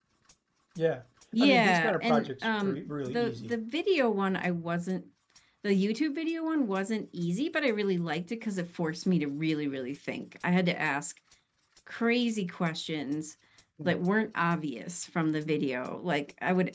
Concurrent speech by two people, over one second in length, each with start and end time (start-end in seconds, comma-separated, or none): 1.4-3.5